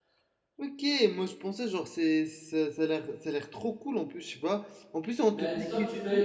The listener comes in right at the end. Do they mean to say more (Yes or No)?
Yes